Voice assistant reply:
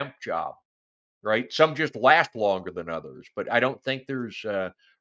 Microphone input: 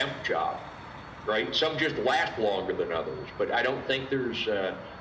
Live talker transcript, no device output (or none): none